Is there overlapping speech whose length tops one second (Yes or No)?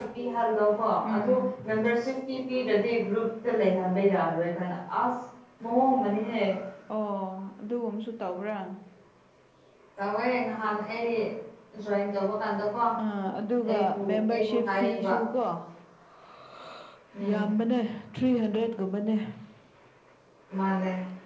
Yes